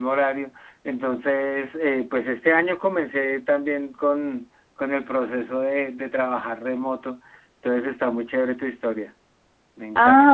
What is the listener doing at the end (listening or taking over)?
taking over